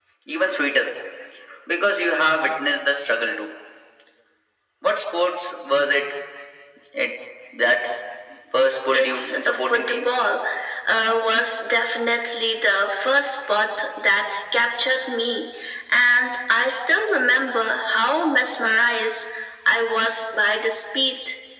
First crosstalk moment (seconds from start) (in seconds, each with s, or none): 8.9 s